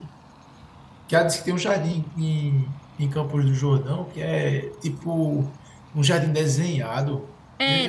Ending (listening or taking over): taking over